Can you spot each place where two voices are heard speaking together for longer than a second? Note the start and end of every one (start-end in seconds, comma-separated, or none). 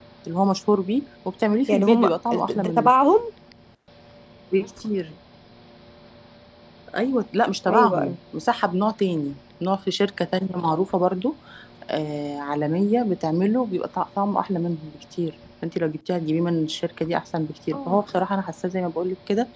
1.7-2.9